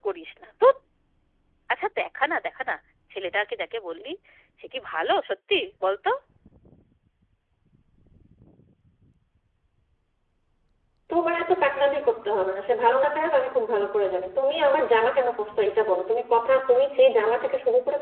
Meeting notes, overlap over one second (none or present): none